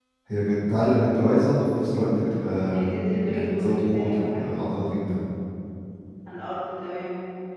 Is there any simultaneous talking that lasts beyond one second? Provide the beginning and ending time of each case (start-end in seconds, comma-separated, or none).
3.3-4.6